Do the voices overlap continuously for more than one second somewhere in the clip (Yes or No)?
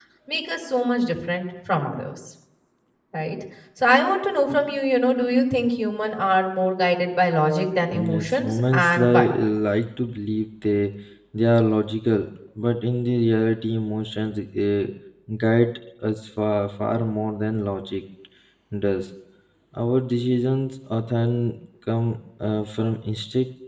Yes